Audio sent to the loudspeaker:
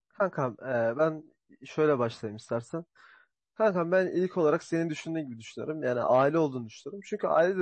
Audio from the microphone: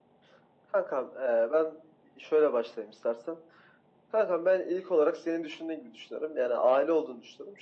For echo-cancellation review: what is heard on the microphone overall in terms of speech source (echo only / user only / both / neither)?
echo only